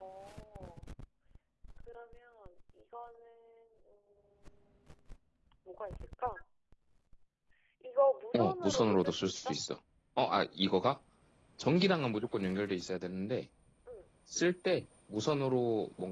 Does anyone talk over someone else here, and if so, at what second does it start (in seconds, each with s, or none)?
8.4 s